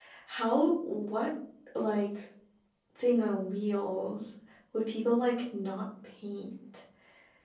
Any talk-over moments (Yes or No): No